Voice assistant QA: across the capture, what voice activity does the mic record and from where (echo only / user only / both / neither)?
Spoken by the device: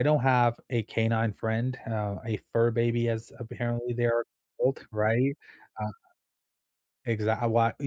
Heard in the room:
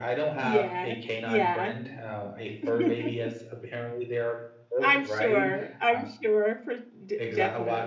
both